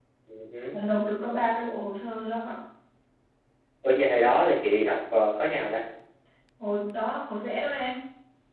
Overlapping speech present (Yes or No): No